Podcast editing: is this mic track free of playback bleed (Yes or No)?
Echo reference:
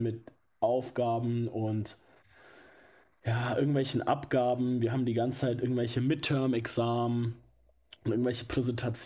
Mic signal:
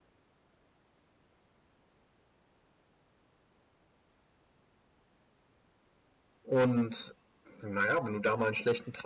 Yes